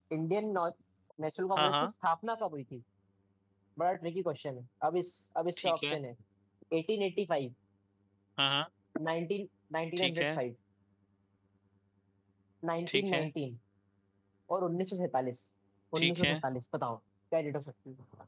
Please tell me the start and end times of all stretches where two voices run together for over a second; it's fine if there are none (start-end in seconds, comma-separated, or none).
none